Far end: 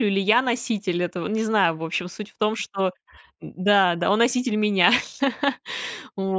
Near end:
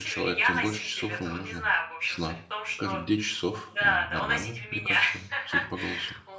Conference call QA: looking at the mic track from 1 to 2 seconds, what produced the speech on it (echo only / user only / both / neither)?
both